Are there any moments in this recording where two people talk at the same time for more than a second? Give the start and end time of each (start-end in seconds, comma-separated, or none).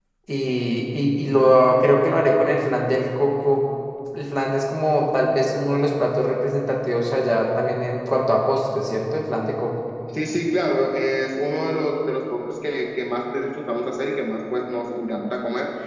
none